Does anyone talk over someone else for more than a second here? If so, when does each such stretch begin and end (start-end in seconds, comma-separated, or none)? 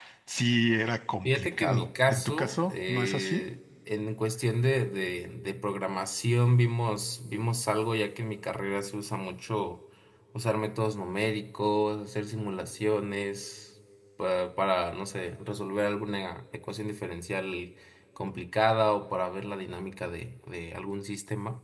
1.2-3.4